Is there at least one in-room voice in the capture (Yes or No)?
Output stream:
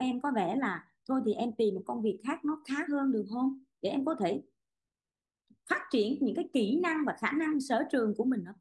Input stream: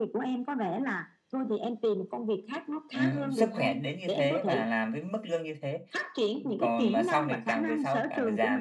Yes